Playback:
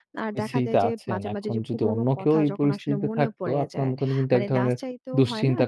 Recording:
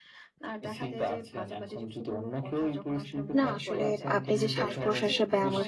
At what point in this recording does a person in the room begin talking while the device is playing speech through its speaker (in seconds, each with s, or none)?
3.4 s